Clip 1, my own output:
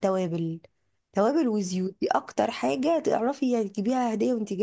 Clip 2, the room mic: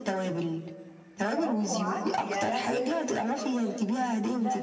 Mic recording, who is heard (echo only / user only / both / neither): both